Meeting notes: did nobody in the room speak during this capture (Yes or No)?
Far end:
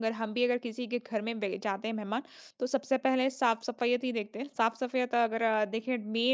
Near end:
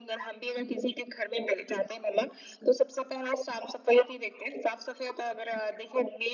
Yes